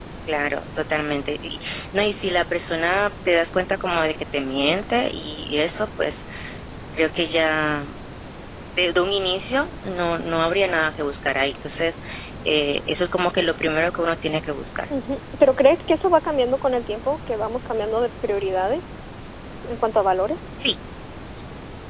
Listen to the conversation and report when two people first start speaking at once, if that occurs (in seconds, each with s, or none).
none